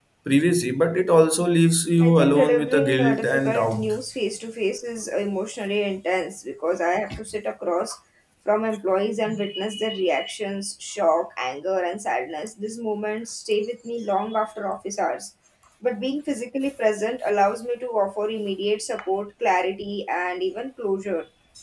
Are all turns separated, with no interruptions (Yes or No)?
No